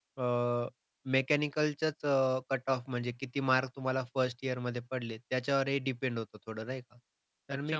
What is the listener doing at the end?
taking over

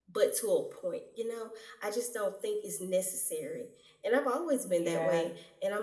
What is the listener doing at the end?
listening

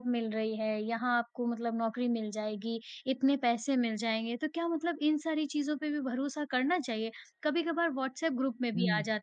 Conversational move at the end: listening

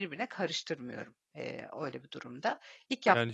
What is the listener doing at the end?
taking over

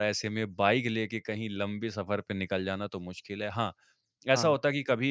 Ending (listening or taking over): listening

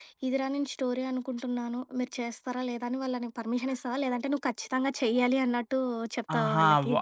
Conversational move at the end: taking over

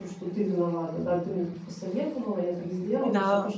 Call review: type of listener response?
listening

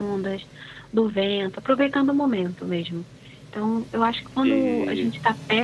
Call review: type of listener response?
listening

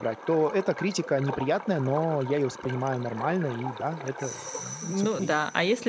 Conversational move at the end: taking over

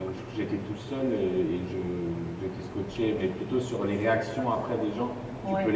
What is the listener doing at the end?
listening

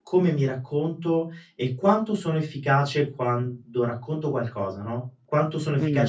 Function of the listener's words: taking over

